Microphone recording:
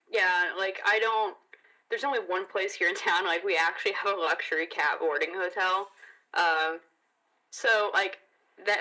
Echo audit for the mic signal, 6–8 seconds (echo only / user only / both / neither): echo only